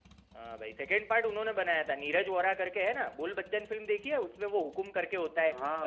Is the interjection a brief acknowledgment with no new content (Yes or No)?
No